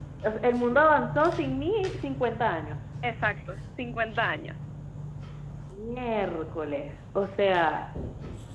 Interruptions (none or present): none